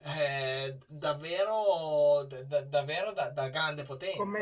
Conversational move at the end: taking over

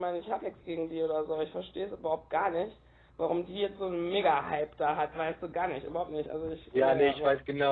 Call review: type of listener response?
taking over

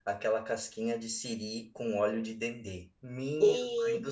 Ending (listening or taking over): listening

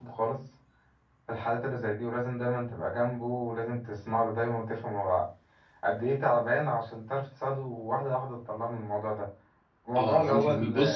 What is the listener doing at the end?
taking over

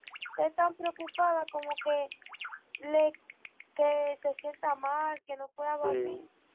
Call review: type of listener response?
listening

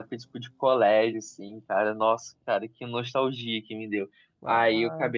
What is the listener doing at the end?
listening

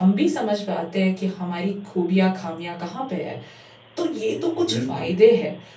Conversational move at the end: listening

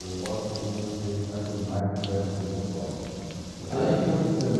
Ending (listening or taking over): listening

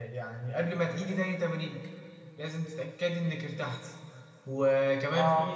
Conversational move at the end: listening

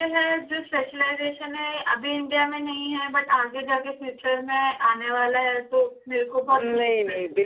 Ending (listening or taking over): taking over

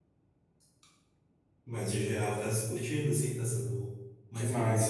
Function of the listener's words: taking over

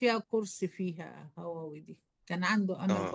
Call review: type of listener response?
listening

